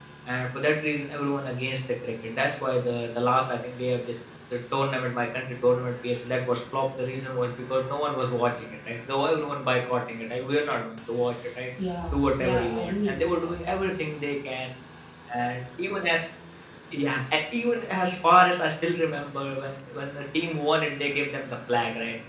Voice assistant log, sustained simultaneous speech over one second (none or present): present